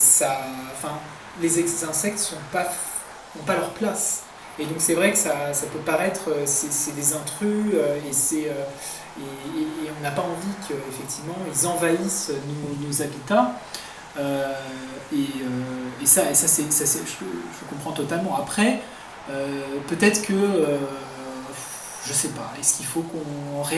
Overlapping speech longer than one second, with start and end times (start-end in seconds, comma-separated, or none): none